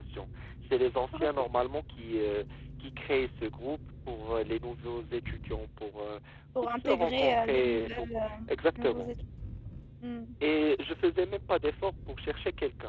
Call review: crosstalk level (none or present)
present